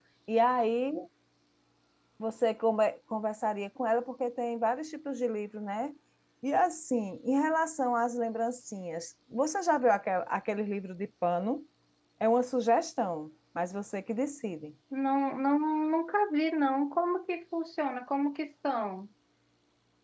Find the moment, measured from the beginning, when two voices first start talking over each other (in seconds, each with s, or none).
none